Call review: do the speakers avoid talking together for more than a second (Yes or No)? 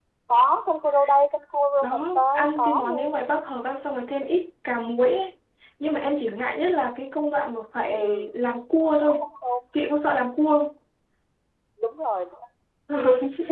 No